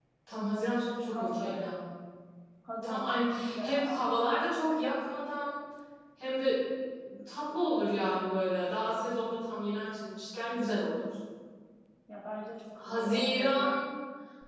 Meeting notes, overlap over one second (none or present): present